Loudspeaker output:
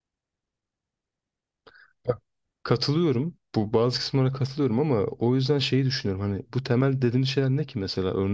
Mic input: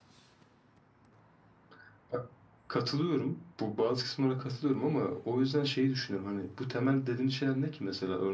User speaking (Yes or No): No